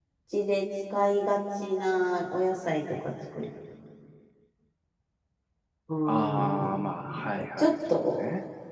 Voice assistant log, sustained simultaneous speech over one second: present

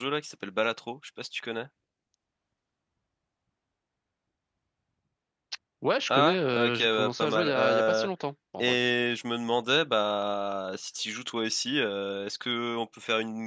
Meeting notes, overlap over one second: present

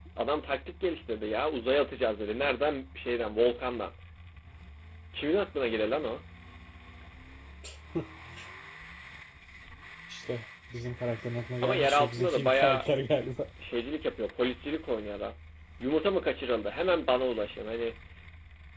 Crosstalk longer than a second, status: present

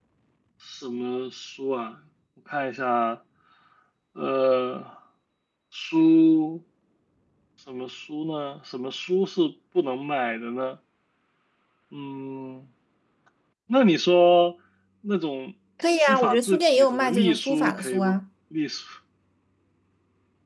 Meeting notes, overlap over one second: present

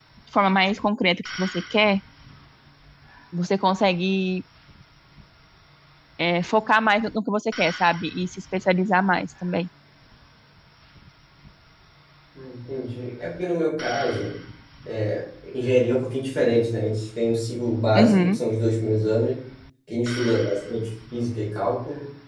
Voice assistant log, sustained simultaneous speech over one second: none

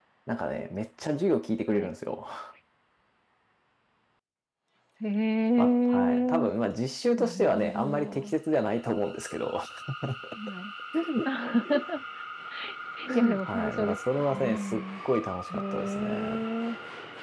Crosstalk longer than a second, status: present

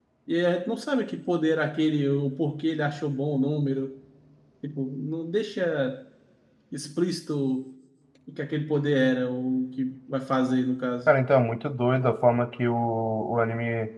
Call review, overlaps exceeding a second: none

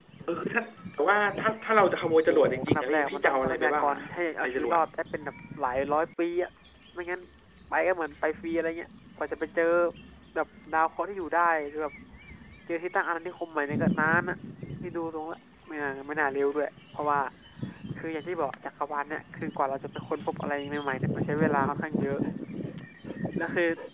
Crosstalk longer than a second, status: present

